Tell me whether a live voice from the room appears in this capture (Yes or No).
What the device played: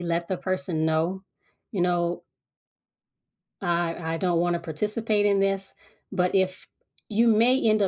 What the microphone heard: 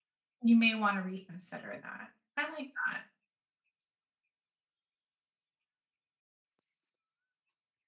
Yes